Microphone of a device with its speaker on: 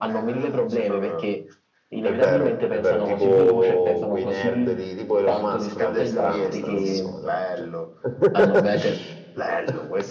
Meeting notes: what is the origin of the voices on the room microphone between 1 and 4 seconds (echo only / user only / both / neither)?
both